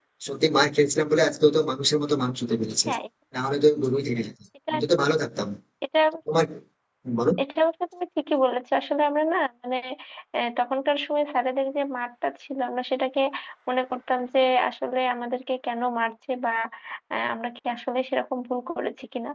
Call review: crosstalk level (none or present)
none